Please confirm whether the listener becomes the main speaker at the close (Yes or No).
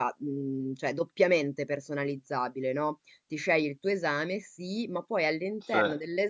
No